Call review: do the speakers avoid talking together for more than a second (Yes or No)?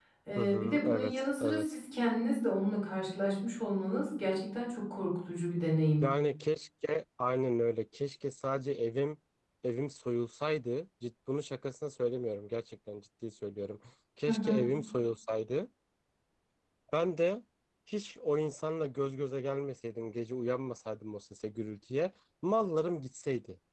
No